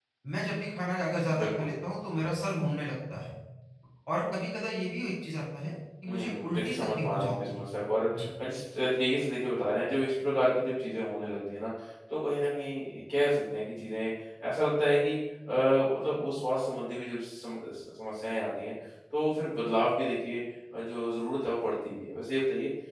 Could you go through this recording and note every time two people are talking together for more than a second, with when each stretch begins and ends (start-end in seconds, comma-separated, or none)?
6.1-7.6